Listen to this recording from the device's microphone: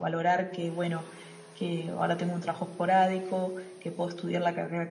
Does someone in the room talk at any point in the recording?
No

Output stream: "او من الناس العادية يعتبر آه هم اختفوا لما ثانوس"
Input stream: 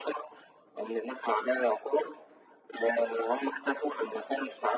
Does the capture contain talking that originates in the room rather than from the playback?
No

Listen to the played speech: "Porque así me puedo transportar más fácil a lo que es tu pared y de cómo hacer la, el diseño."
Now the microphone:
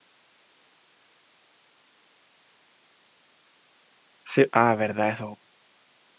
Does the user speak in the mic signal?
Yes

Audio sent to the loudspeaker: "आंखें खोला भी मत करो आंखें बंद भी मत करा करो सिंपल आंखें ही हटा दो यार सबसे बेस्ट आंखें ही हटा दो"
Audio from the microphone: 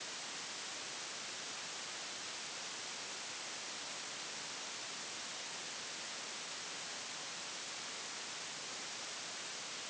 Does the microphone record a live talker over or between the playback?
No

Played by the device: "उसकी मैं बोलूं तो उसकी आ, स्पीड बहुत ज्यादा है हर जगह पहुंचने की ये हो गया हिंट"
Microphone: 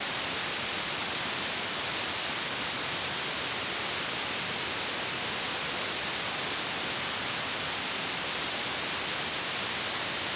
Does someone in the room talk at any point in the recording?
No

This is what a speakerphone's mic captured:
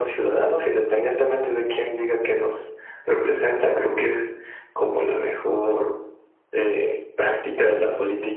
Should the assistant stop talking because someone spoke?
No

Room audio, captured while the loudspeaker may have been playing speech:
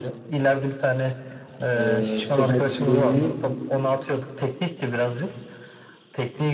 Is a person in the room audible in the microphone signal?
Yes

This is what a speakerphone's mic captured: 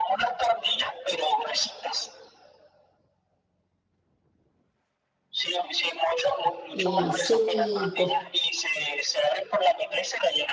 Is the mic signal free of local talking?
No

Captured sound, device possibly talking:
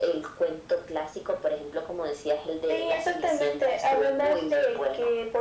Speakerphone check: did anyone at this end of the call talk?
No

